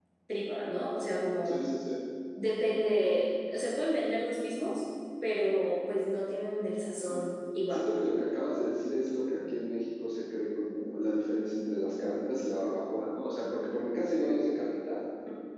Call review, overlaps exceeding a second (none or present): none